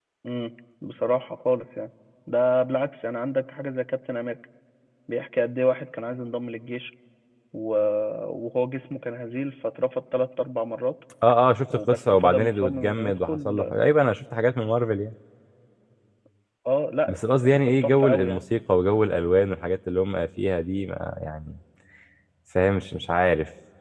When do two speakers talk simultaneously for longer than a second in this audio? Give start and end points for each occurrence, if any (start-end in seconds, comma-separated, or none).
11.9-13.7, 17.1-18.4